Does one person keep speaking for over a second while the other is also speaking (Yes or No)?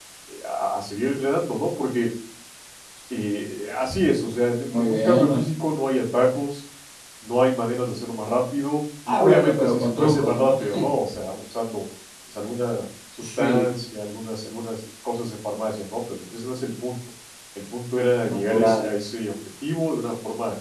Yes